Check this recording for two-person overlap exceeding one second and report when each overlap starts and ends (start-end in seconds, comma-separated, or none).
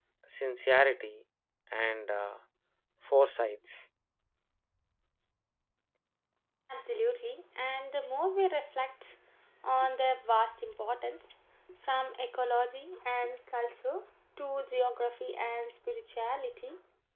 none